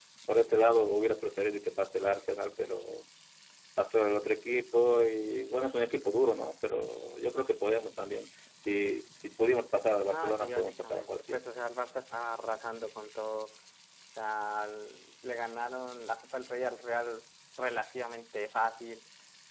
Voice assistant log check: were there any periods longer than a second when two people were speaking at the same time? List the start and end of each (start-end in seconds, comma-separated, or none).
10.0-11.4